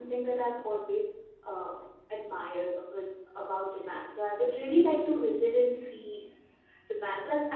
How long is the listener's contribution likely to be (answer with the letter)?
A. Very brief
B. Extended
A